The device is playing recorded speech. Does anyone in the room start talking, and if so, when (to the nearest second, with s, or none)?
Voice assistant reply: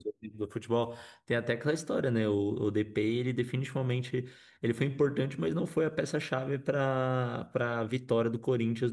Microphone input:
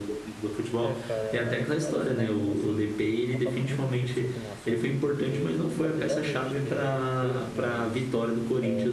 1 s